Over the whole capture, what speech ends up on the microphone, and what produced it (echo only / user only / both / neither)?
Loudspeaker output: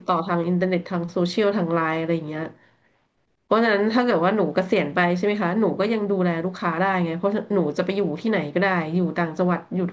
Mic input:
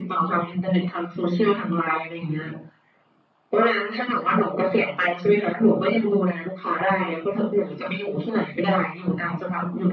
echo only